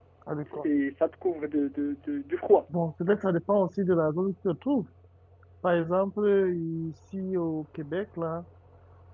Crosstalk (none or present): none